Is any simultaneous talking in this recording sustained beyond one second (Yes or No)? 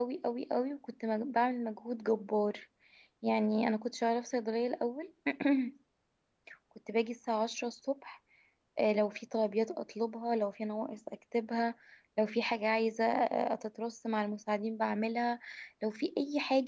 No